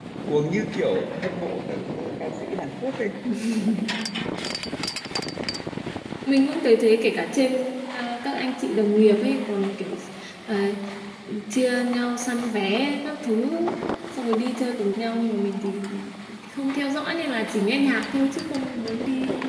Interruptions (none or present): none